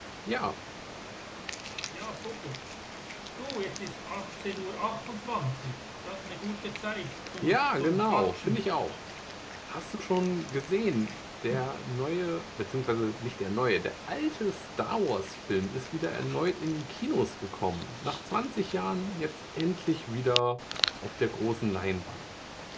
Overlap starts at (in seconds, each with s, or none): 7.4 s